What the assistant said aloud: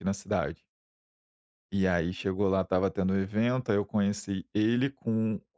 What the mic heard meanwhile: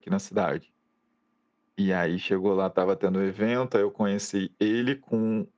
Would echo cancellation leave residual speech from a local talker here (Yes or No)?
No